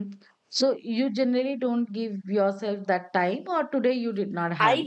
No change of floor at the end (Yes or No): No